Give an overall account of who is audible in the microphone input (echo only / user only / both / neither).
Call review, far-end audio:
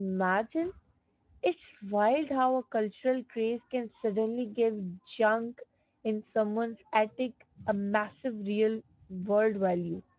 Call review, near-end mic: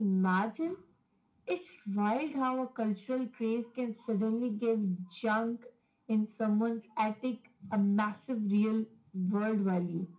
echo only